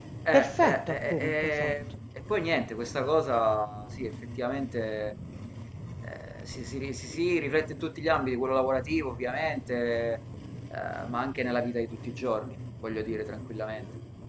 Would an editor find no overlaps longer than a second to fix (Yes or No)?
No